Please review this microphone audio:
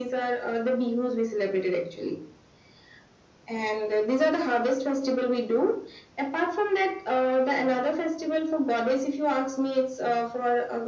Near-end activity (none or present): none